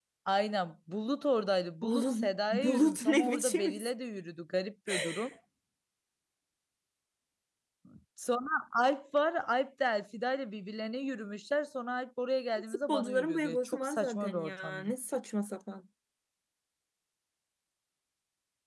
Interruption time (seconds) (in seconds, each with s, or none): 1.8 s